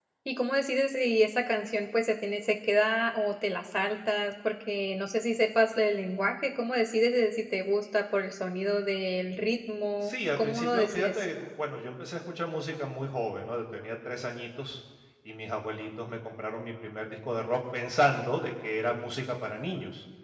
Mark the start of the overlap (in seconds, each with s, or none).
10.0 s